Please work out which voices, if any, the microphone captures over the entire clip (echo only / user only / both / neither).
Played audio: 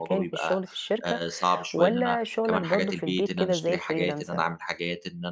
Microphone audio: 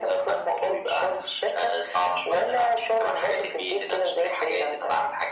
echo only